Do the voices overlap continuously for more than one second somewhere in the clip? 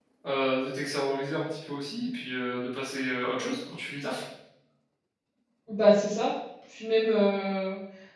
No

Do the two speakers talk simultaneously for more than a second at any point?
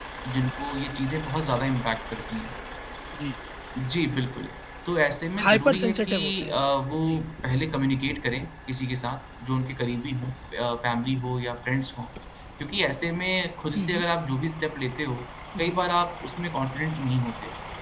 Yes, from 5.4 s

